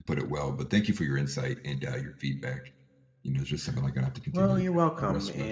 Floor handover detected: Yes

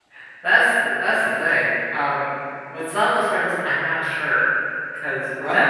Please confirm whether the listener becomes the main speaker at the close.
No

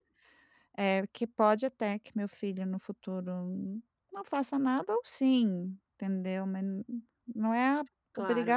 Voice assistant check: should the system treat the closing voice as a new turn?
Yes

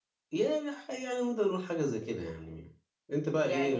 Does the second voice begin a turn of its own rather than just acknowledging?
Yes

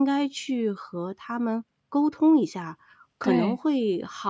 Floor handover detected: No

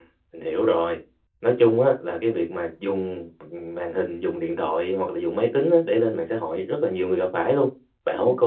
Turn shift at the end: No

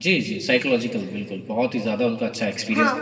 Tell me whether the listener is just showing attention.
No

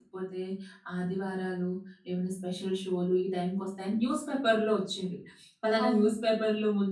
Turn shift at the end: No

